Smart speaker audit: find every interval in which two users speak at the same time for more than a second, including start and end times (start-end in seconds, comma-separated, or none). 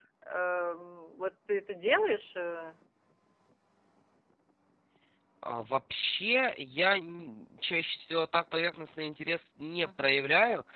none